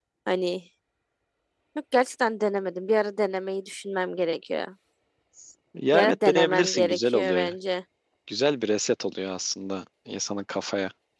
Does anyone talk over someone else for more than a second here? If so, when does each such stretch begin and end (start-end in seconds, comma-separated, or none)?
5.9-7.5